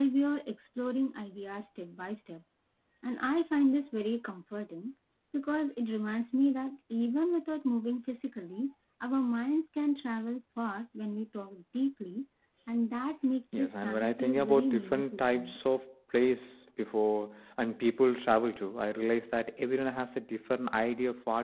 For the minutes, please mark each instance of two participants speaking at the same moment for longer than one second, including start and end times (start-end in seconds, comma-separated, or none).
13.6-15.5